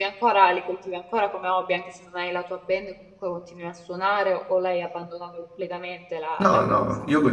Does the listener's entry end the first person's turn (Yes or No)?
Yes